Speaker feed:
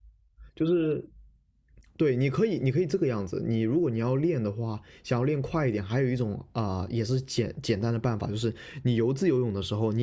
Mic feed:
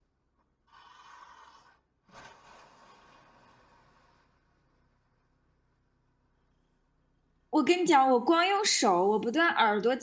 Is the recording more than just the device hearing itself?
Yes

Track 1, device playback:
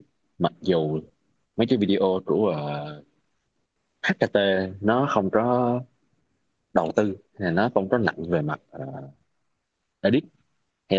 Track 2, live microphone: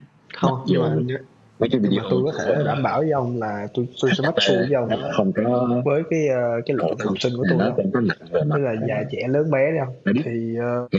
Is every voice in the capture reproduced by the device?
No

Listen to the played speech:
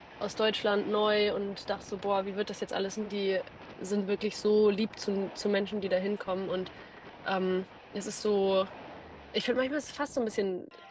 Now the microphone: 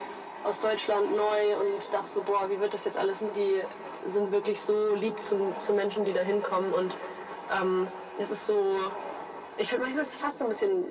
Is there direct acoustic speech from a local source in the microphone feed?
No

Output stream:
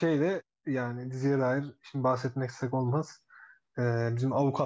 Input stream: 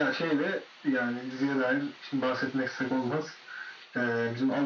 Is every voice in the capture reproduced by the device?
Yes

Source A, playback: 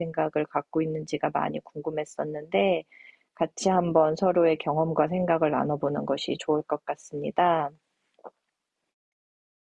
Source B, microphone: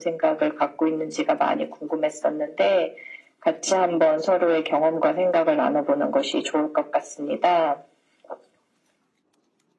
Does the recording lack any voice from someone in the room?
Yes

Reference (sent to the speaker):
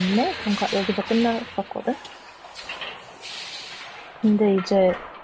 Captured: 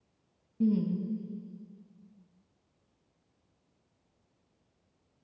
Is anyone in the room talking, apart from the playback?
Yes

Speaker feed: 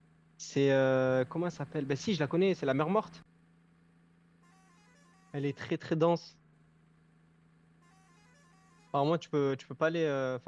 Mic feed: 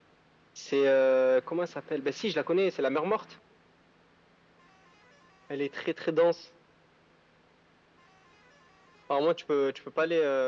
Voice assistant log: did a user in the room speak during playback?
No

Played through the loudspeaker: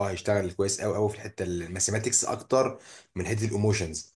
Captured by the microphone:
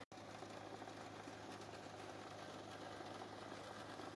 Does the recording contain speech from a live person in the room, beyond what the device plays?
No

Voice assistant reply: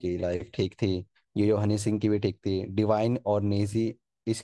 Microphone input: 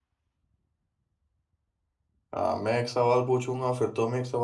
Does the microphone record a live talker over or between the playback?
Yes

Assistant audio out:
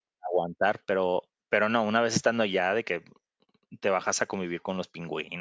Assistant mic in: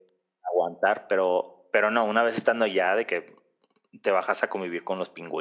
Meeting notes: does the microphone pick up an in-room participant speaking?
No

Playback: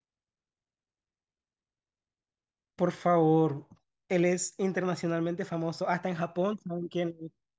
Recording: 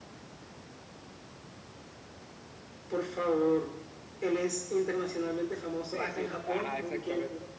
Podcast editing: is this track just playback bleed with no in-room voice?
No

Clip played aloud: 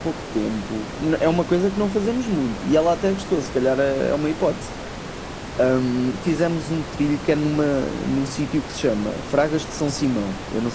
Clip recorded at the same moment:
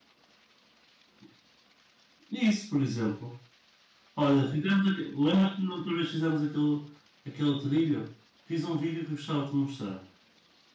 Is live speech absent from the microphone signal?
No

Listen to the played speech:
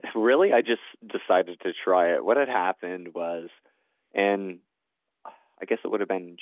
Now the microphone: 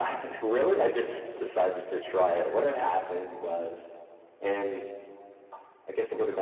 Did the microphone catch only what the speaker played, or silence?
Yes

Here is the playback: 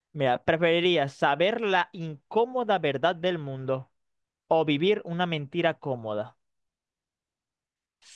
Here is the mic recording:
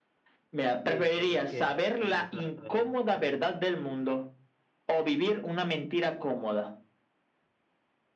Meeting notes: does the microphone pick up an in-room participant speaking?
Yes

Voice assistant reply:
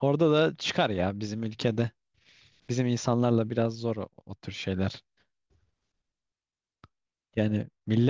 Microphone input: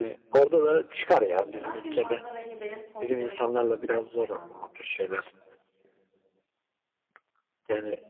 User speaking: Yes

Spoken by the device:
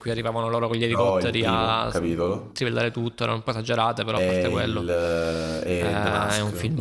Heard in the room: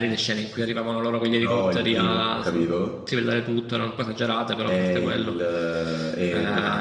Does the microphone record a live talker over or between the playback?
No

